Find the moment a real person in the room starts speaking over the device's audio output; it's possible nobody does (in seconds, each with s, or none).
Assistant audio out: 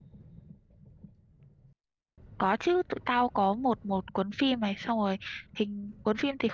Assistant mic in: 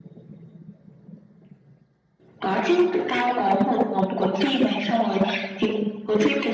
none